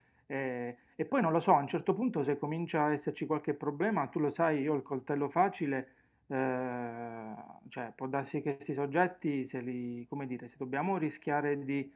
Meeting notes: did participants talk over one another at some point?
No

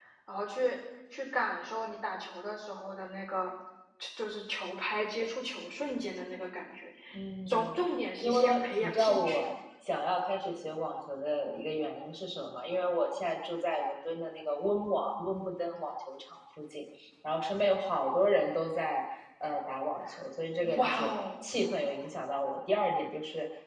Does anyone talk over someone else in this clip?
Yes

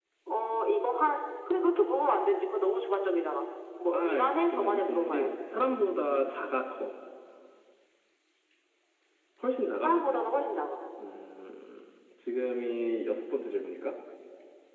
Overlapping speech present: Yes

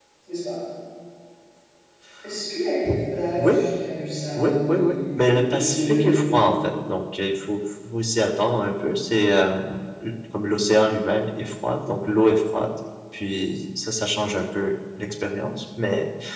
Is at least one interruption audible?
Yes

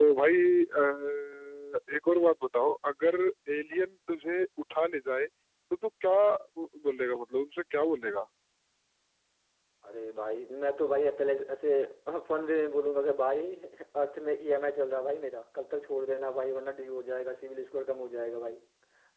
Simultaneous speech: No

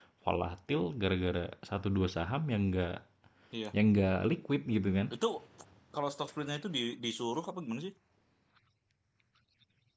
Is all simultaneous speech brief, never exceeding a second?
Yes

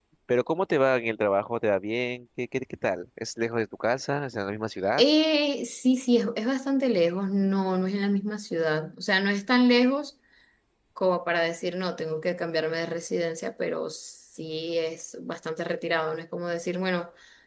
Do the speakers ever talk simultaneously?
No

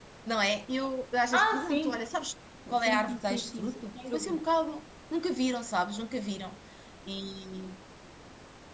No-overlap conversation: No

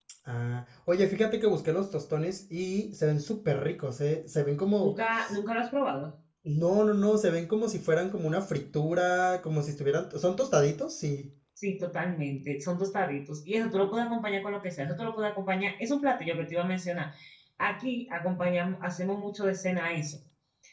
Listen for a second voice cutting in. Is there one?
No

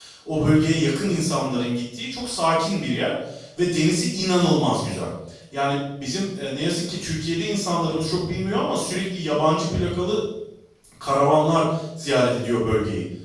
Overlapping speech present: No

